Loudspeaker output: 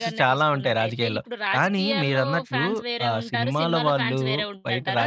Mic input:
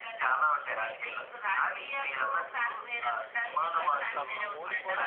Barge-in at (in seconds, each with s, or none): 3.8 s